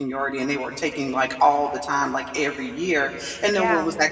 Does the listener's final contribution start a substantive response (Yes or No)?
No